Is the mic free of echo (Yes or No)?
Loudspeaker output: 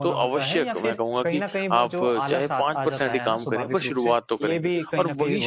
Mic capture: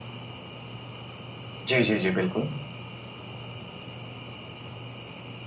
Yes